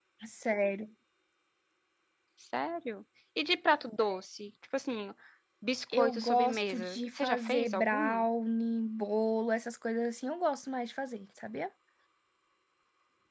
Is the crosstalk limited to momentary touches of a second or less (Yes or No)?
No